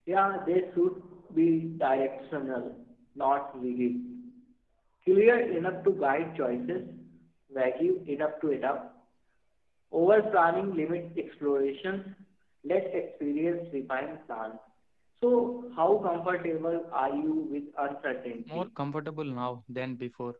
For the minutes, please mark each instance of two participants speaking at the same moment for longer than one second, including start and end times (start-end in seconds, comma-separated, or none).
none